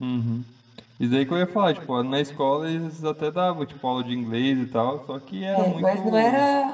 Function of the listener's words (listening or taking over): taking over